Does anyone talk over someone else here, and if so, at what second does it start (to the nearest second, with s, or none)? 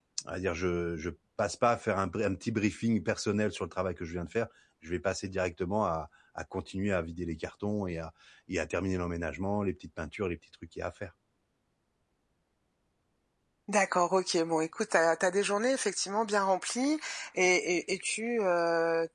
none